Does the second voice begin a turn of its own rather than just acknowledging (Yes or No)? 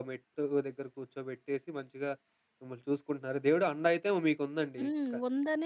Yes